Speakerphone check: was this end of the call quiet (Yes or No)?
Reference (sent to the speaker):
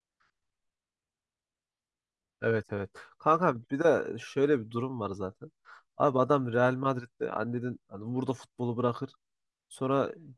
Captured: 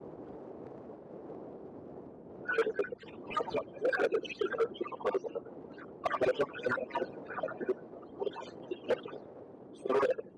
Yes